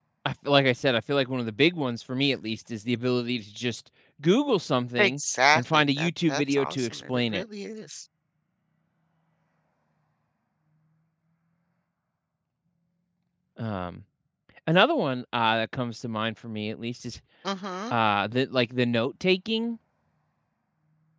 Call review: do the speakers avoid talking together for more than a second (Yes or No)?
No